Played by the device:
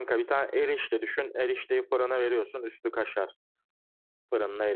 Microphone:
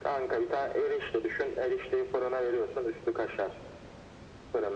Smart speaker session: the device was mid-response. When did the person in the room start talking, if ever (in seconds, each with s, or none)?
none